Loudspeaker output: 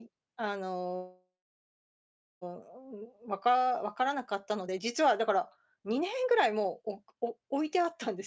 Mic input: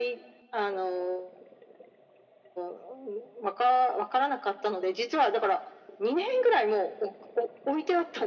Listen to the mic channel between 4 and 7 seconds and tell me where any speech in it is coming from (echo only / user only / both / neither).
echo only